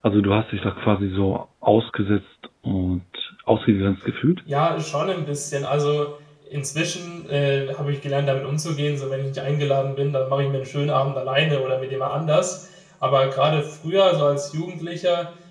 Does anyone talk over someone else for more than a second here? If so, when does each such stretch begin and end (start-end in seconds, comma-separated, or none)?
none